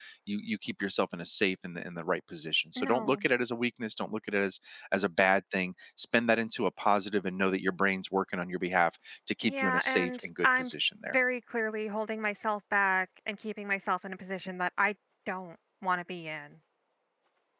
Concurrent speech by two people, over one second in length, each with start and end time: 9.4-10.7

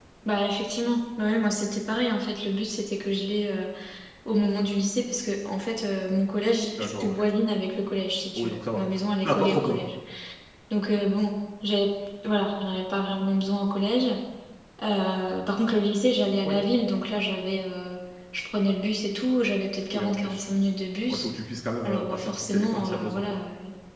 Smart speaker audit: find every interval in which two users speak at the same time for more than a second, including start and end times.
21.8-23.4

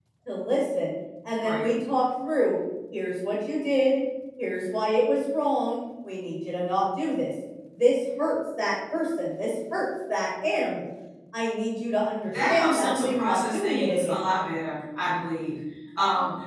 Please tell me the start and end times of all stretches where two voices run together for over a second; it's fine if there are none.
12.3-14.2

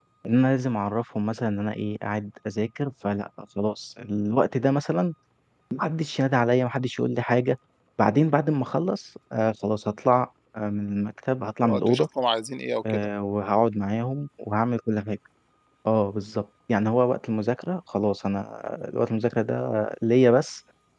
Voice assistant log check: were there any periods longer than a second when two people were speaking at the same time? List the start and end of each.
none

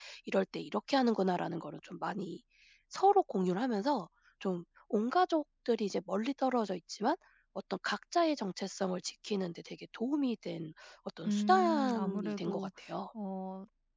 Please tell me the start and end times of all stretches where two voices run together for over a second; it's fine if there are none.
11.3-12.7

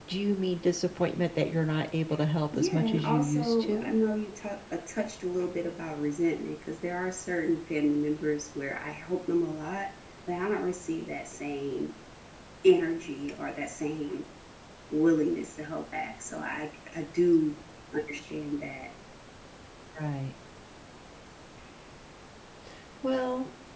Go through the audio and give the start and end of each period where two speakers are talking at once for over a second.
2.5-3.9

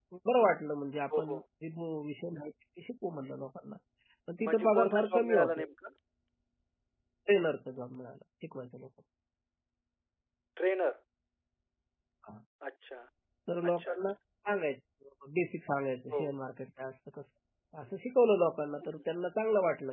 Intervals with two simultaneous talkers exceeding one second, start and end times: 4.4-5.7

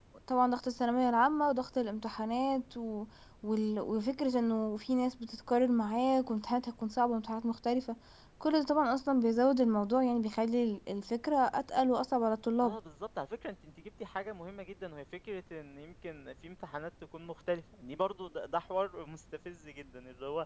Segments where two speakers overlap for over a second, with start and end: none

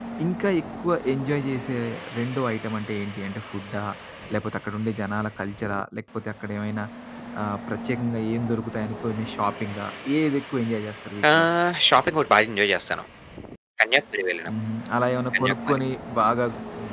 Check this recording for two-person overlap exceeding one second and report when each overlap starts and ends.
none

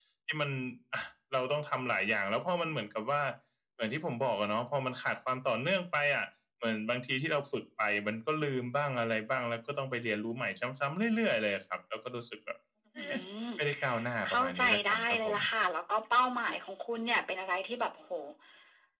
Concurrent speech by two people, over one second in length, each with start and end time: 14.3-15.5

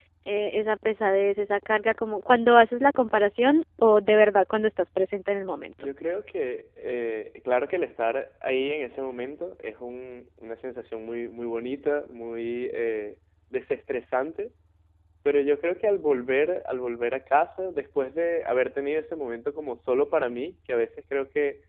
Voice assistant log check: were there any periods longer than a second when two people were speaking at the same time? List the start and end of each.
none

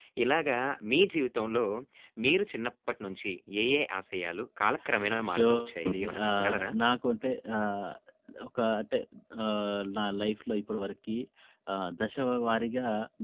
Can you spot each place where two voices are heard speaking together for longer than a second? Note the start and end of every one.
5.3-6.7

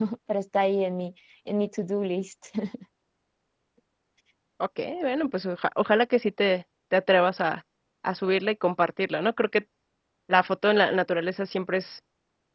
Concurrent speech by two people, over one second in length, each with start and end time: none

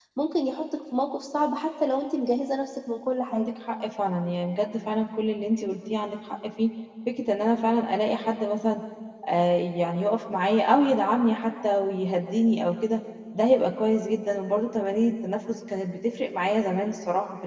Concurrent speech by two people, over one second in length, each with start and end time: none

